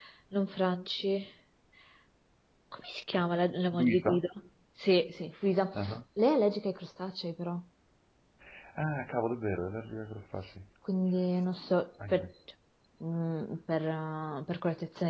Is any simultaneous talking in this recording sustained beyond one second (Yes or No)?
No